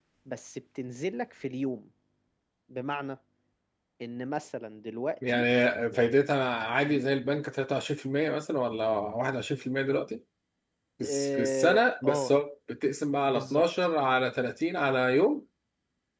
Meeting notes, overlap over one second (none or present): present